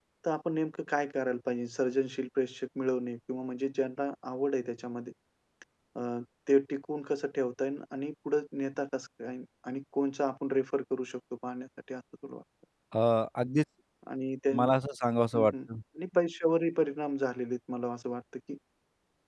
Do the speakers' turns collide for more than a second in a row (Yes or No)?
No